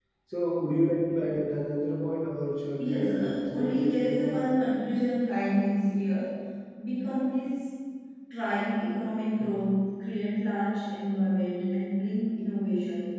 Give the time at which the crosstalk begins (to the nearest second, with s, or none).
3 s